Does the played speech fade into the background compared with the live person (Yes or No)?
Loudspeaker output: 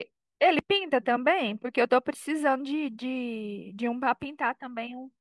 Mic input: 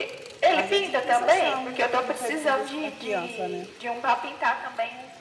No